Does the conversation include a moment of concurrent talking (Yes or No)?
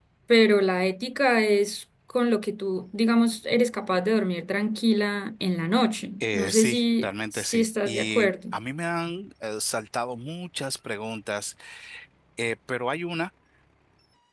Yes